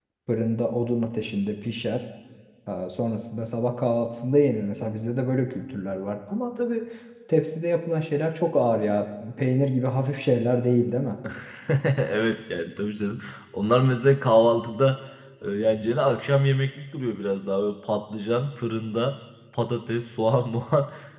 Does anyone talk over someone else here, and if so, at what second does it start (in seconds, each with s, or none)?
none